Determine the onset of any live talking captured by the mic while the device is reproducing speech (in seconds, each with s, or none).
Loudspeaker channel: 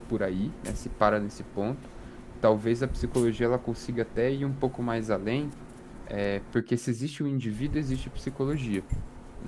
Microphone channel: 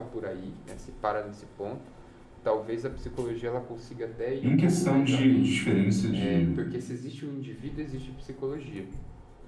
4.4 s